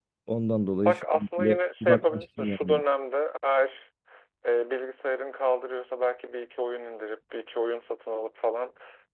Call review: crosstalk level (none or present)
present